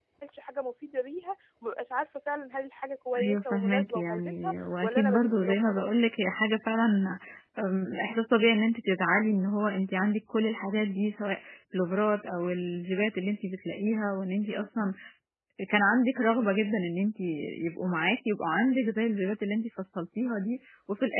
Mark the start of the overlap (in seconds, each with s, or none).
3.1 s